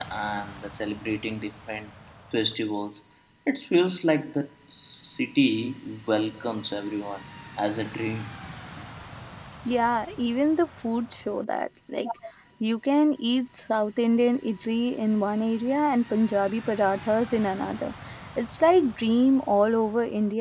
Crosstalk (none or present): none